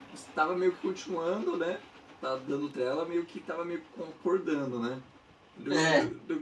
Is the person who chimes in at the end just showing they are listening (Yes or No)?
Yes